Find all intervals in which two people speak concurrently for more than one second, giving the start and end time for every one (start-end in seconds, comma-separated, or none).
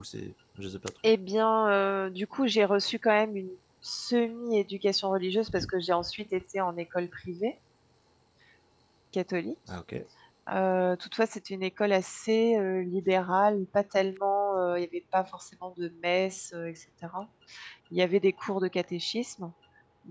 none